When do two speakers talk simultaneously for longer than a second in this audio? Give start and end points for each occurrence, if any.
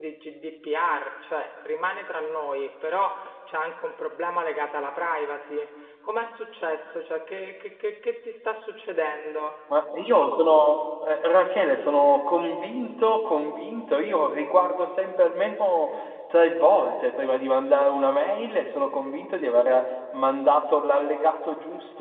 none

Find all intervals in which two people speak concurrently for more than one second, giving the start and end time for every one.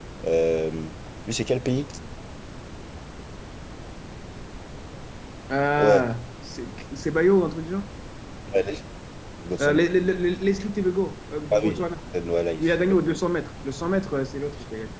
none

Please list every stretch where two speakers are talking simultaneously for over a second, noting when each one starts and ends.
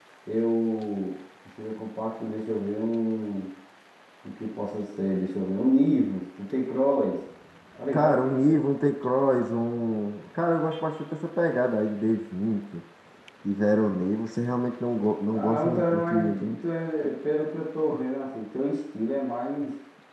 15.3-16.6

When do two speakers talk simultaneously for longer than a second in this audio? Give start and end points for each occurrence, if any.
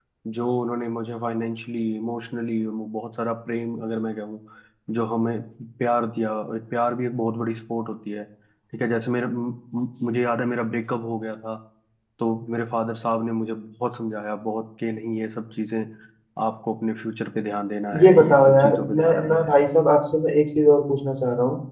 18.0-19.6

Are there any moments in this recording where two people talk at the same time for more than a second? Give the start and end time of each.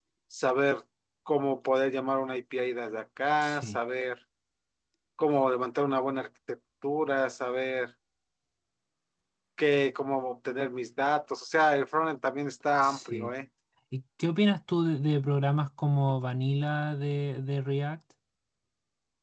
none

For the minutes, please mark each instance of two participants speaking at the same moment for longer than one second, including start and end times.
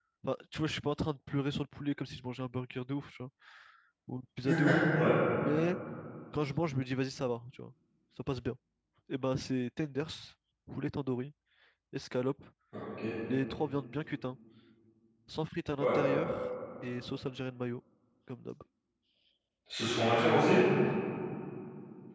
none

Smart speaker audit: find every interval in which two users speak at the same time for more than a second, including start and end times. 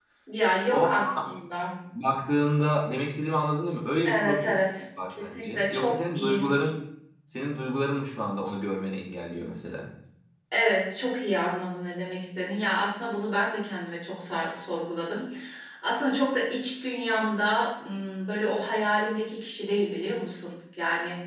5.2-6.5

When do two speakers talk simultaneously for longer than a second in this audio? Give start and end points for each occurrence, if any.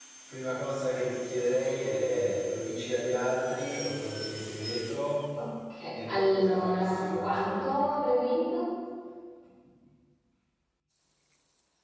5.9-7.8

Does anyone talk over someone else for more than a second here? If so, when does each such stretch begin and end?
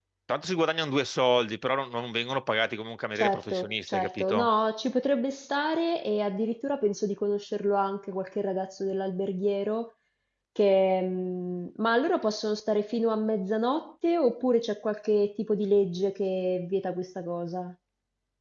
3.1-4.5

